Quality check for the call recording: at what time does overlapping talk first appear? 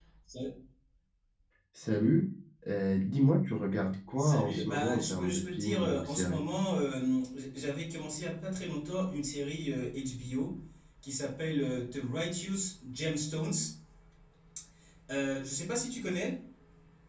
4.2 s

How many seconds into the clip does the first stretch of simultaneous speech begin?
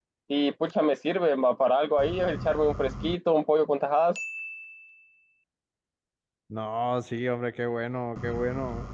none

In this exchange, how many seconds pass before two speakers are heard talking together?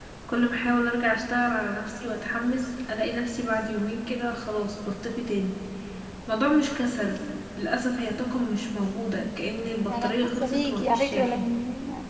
9.9 s

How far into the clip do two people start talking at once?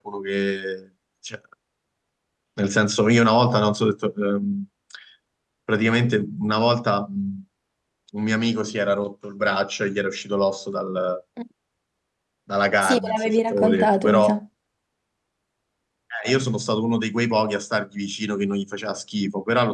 12.8 s

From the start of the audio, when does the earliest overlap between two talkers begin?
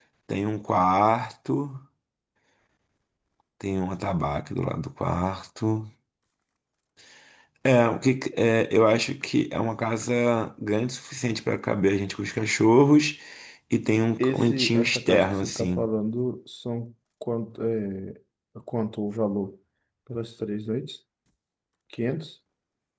14.2 s

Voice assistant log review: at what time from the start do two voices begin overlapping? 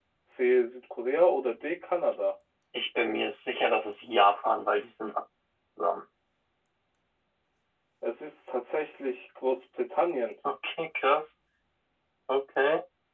none

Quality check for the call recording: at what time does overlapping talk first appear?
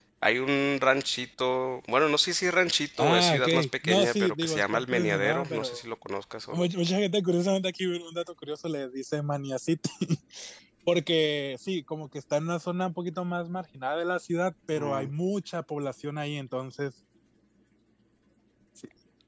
3.0 s

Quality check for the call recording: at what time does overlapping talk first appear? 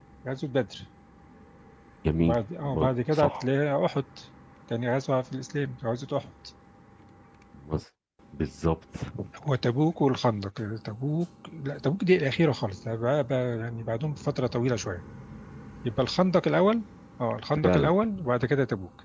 2.2 s

